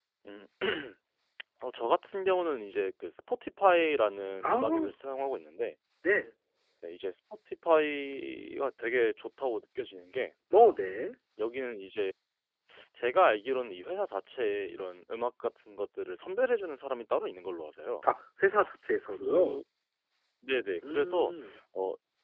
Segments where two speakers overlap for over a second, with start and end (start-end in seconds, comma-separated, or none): none